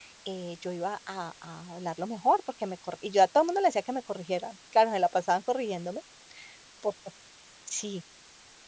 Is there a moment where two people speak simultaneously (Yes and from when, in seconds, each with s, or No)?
No